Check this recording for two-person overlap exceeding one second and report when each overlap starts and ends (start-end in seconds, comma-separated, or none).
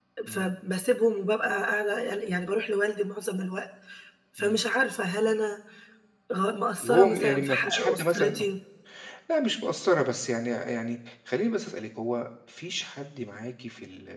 6.8-8.4